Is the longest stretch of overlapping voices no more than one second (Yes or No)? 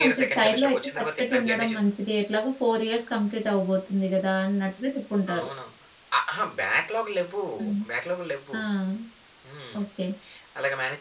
No